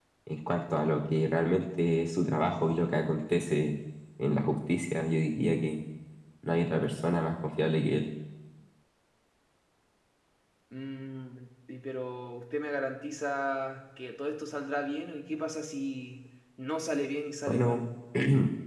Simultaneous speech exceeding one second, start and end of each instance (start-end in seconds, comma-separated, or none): none